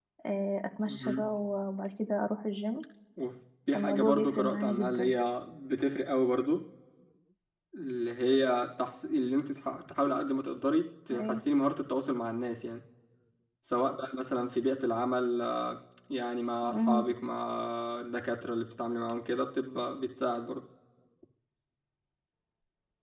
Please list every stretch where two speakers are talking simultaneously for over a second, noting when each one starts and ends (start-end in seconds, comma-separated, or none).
3.7-5.1